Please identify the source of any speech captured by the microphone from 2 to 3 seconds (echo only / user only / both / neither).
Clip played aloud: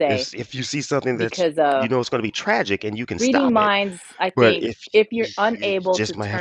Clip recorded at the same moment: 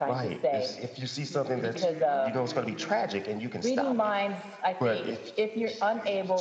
both